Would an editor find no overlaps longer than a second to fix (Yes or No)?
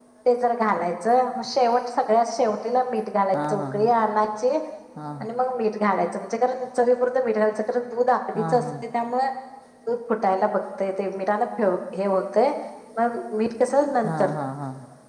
Yes